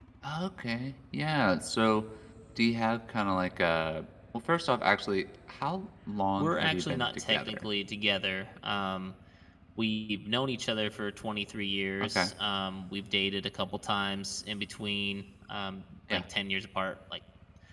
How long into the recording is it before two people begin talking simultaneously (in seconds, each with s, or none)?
6.4 s